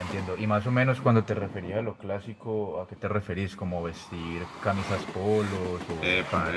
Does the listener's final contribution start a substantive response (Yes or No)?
Yes